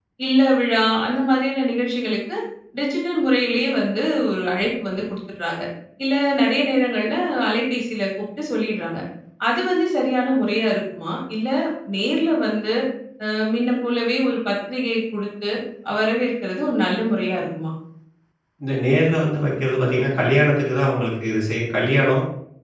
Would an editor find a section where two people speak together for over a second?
No

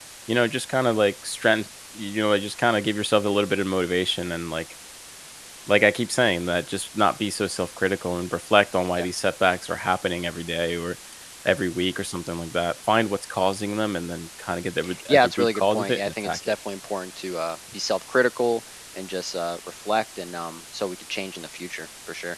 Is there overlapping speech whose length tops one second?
Yes, from 14.8 s

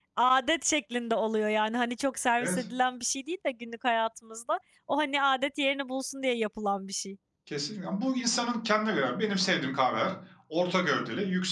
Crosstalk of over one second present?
No

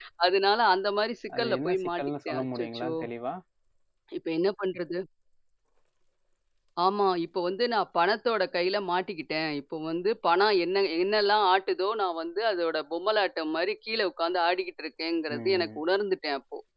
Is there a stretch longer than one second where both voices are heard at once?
Yes, from 1.4 s

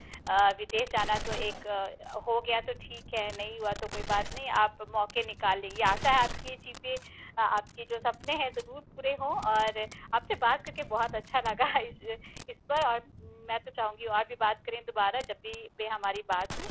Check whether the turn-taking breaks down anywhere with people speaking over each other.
No

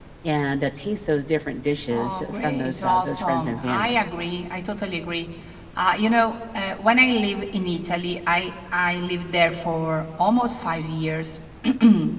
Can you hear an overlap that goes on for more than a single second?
Yes, from 1.9 s

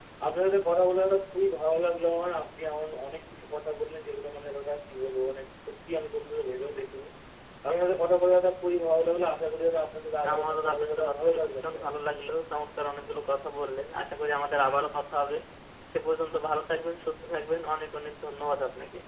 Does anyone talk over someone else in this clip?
Yes, from 10.2 s

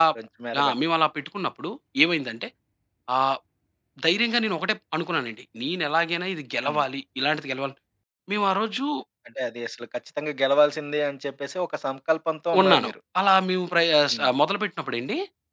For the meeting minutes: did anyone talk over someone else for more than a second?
No

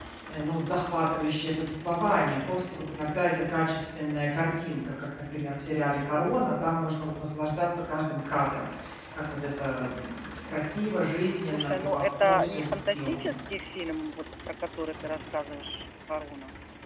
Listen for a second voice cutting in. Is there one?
Yes, from 11.3 s

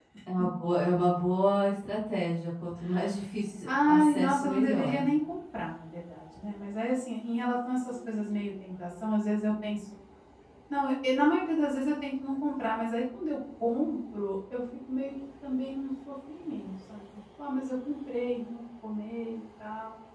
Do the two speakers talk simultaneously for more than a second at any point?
Yes, from 3.6 s

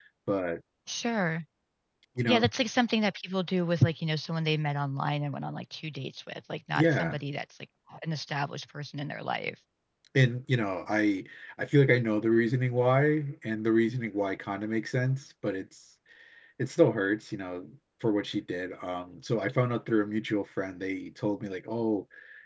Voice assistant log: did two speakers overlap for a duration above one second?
No

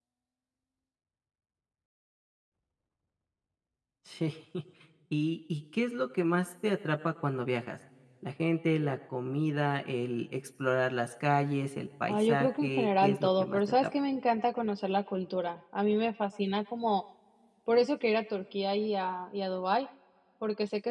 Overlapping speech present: Yes, from 12.1 s

